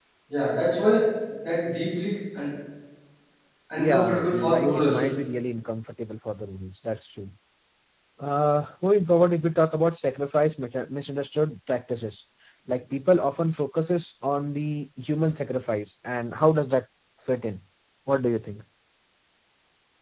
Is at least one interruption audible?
Yes, from 3.8 s

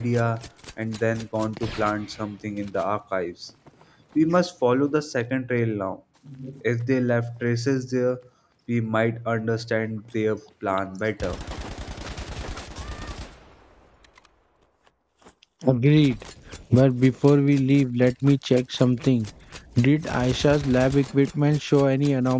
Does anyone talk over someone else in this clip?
No

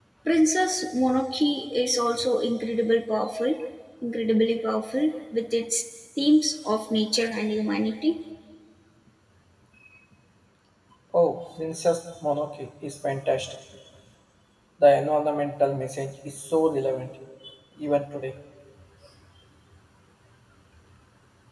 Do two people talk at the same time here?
No

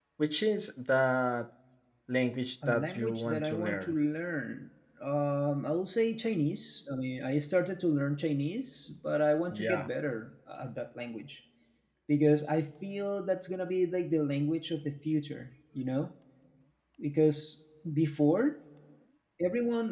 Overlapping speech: Yes, from 2.7 s

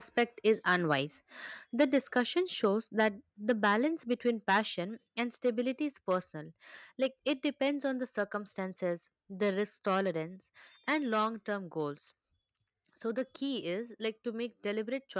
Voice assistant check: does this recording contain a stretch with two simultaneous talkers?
No

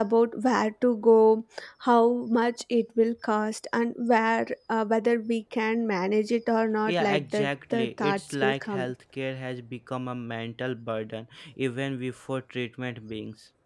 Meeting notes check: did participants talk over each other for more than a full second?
Yes, from 6.9 s

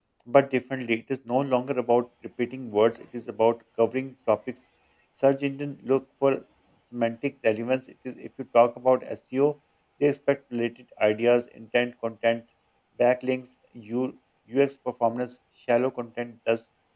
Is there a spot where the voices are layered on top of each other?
No

